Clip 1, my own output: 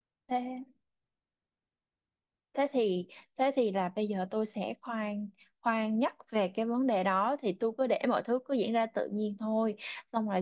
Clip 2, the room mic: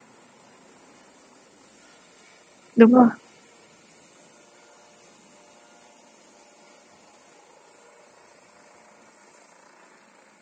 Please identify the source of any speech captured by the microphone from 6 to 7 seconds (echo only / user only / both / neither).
neither